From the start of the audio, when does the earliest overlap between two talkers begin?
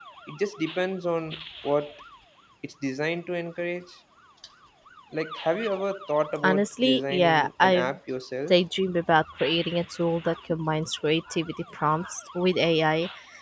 6 s

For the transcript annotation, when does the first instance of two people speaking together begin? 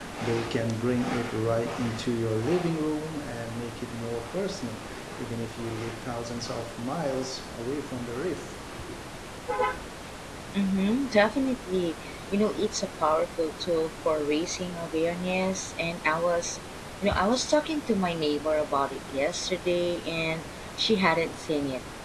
none

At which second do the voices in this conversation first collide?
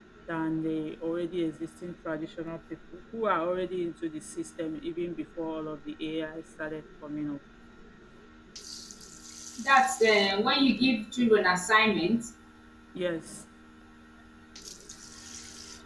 none

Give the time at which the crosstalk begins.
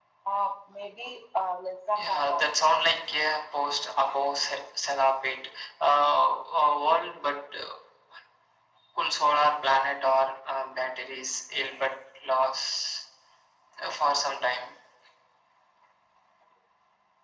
2 s

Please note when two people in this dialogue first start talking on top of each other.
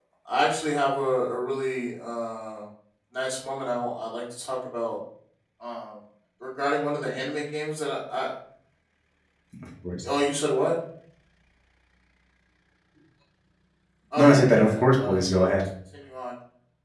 14 s

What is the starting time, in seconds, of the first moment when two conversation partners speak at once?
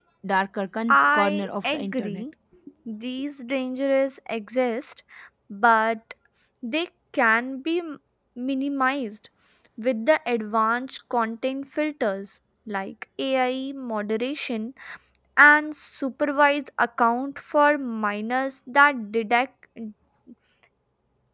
1 s

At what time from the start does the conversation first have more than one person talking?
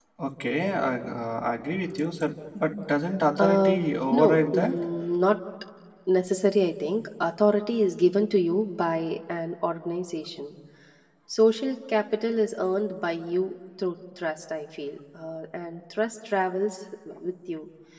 3 s

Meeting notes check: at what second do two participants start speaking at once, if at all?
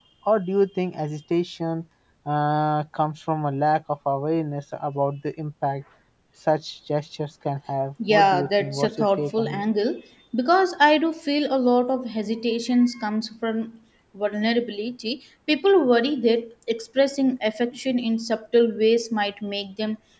8 s

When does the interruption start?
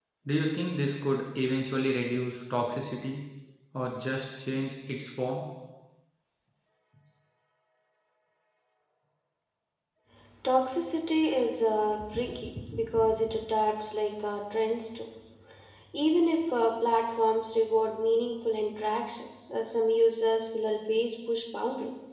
none

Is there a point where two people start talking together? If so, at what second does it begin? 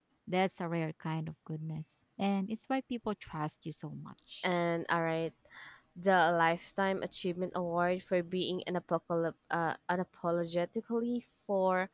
none

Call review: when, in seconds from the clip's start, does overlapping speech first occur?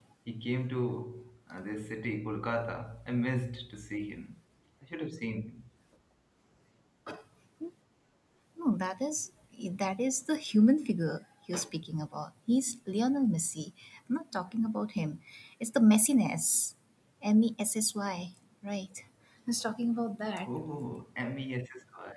none

